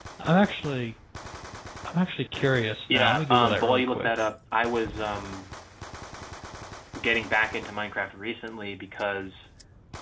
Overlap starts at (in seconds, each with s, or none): 2.9 s